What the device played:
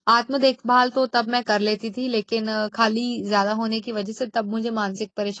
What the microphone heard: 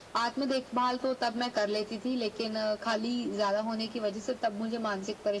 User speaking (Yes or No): No